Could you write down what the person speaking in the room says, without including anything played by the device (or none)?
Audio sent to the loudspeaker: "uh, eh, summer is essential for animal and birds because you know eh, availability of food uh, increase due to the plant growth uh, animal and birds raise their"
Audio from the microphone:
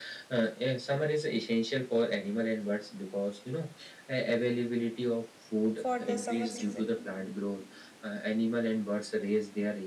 for the summer season.